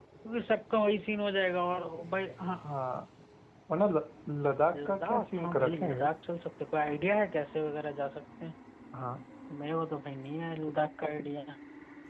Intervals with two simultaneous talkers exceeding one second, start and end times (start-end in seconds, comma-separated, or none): 4.7-6.1